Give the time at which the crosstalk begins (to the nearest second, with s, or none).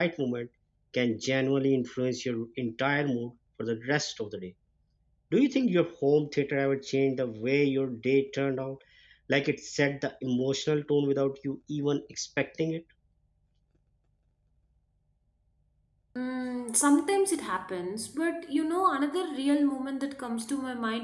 none